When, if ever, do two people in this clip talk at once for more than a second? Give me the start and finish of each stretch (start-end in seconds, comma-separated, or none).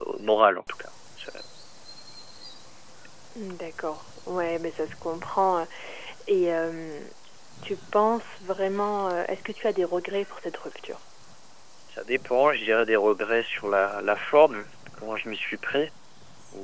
none